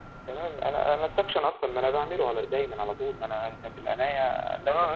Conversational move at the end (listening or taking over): taking over